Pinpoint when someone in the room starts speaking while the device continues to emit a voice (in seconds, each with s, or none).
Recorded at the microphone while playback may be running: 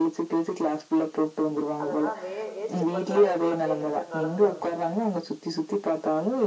1.8 s